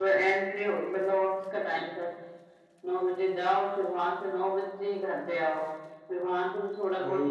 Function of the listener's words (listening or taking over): listening